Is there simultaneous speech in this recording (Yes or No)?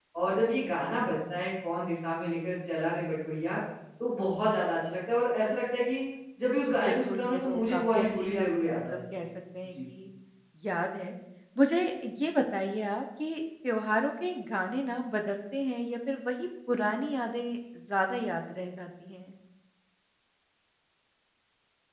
Yes